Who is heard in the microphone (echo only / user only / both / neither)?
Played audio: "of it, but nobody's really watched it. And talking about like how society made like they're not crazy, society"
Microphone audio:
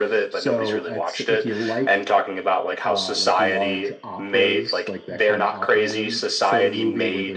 both